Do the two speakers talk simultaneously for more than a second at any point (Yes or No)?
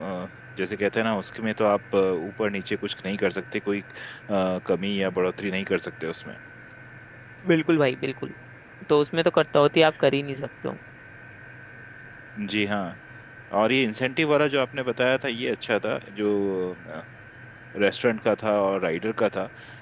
No